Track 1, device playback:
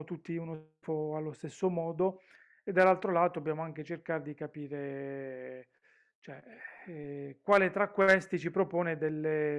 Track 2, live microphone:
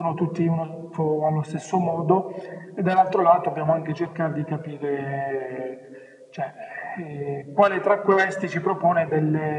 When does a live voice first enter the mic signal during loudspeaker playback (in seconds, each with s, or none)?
none